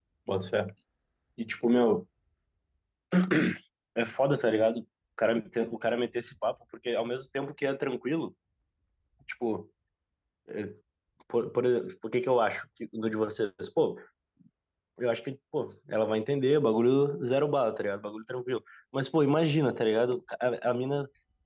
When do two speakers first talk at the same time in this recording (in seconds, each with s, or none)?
none